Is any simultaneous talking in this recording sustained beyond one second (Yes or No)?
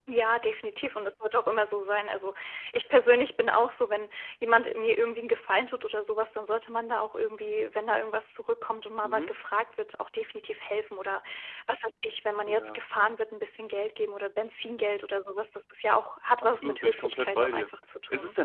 Yes